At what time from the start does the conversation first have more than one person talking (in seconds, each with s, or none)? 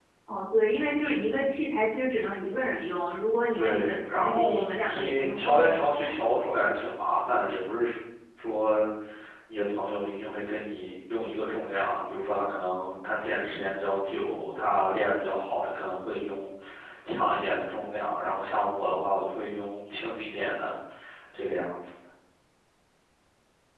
3.5 s